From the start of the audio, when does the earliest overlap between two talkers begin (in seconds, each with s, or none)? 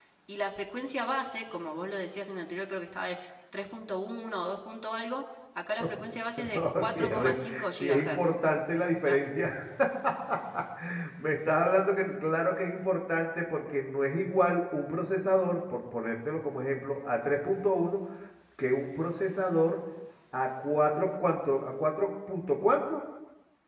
6.5 s